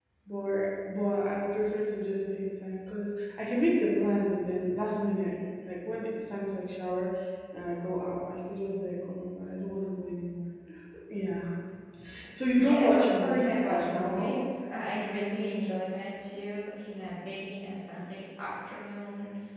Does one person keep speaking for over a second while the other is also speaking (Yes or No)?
Yes